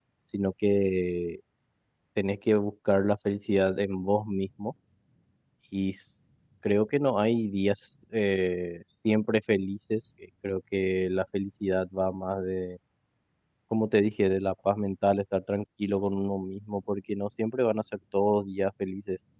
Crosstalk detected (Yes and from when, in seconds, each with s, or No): No